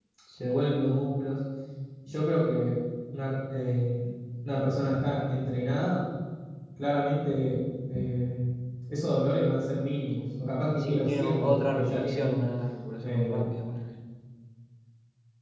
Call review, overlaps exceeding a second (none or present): present